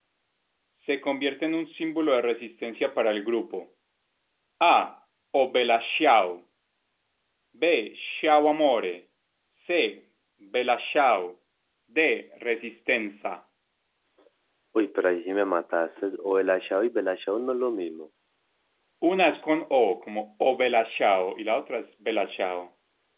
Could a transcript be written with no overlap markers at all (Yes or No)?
Yes